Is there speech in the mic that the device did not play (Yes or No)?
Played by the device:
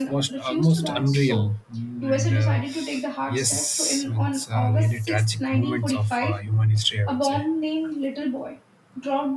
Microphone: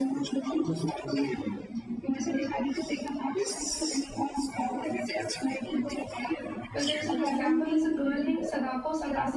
Yes